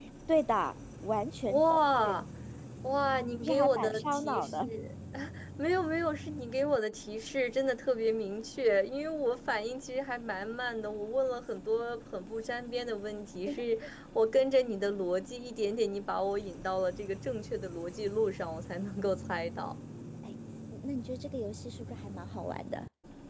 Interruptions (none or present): present